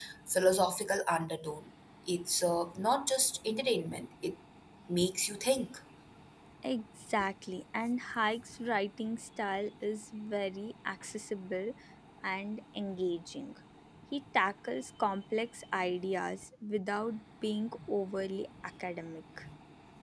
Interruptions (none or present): none